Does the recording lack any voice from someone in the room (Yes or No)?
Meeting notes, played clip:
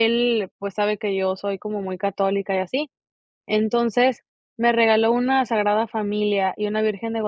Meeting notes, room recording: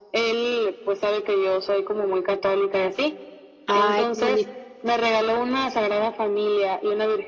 No